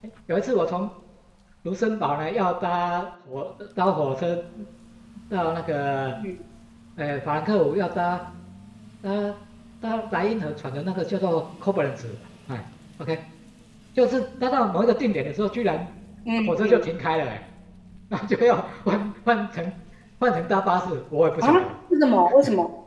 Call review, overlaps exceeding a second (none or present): none